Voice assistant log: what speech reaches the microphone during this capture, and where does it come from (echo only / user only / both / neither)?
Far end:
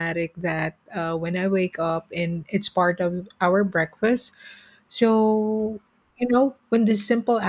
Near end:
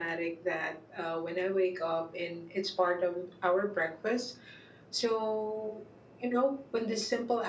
echo only